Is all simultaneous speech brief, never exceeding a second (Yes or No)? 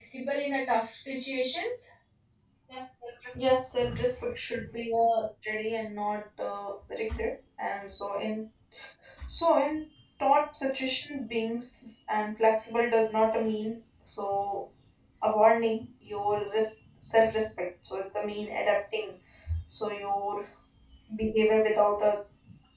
Yes